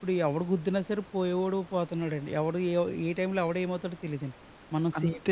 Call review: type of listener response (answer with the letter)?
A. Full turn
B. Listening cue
A